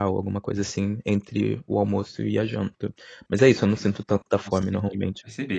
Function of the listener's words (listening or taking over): taking over